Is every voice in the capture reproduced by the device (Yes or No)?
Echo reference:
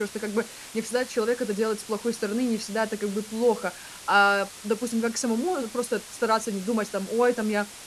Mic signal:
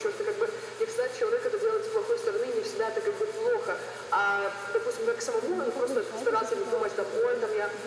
No